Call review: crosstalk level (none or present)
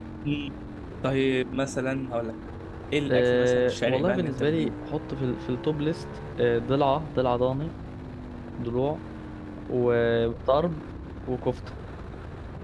present